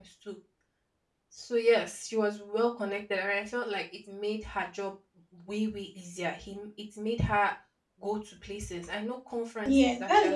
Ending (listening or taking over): taking over